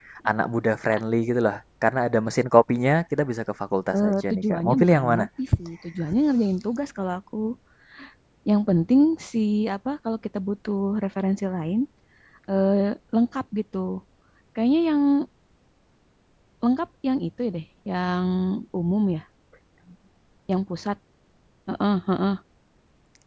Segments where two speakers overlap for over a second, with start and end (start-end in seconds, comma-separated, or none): 3.9-5.3